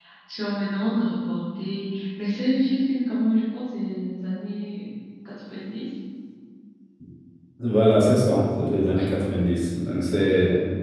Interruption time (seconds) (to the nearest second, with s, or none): none